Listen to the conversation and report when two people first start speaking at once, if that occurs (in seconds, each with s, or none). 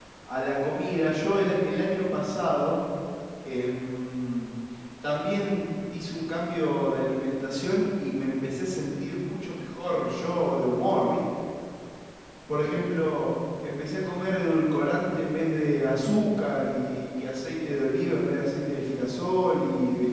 none